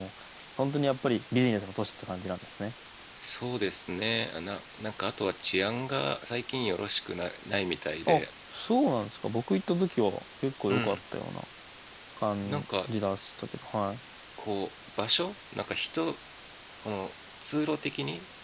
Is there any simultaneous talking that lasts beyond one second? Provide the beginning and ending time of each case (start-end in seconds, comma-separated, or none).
none